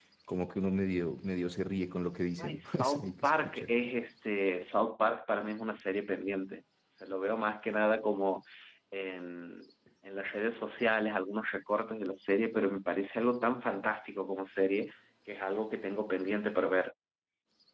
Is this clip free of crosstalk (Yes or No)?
No